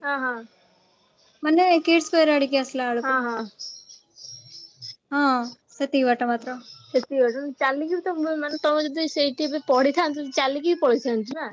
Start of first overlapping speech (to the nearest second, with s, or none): none